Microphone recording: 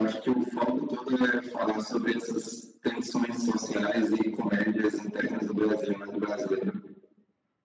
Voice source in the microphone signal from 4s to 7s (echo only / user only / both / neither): echo only